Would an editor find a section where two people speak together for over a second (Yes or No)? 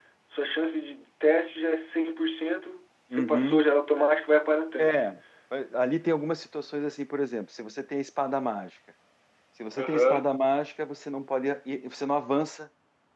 No